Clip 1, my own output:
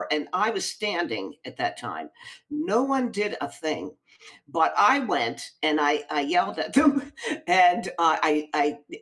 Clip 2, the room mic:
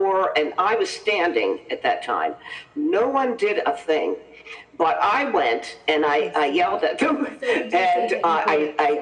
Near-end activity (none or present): present